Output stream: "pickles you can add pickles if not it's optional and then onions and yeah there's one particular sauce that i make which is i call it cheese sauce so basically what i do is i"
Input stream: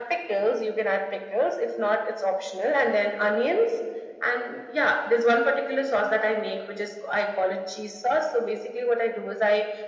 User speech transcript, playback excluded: none

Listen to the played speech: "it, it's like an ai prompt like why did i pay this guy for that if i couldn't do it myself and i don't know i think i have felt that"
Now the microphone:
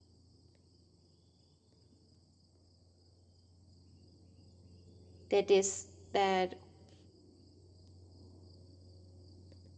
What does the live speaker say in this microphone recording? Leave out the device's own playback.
that this that

